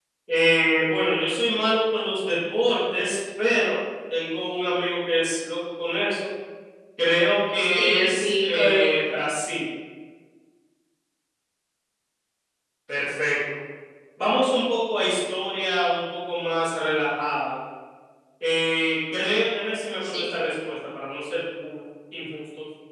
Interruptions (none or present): present